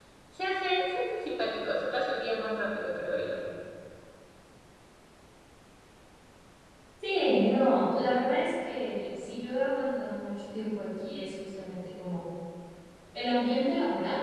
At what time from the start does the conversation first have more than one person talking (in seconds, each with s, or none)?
none